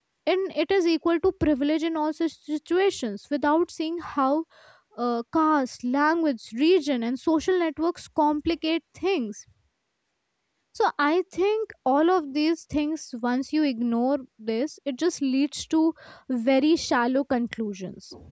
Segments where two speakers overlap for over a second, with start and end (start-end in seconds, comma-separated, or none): none